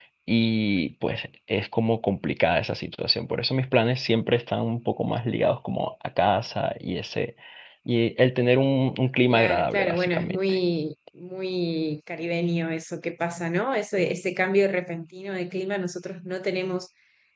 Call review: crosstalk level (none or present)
present